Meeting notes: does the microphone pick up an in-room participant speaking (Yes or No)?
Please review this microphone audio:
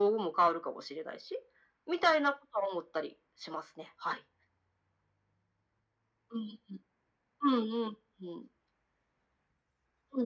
No